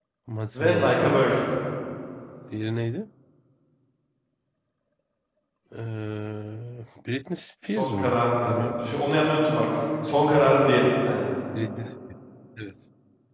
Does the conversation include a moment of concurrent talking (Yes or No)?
Yes